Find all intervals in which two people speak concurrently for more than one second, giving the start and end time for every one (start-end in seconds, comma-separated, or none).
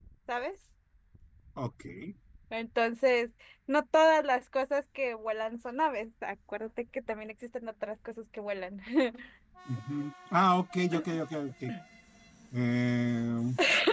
none